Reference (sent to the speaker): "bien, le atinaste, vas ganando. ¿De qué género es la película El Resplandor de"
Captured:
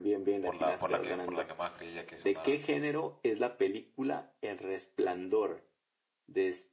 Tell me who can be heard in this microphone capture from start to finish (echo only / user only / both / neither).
both